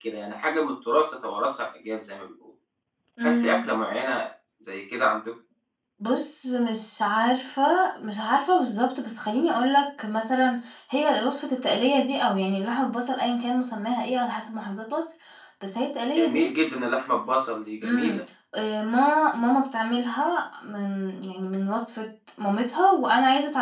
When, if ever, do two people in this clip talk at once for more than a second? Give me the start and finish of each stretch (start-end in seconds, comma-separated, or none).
none